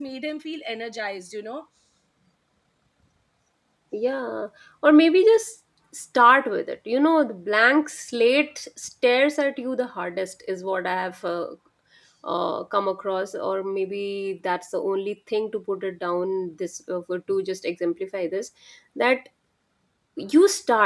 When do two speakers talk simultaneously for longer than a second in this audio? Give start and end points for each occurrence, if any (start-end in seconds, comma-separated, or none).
none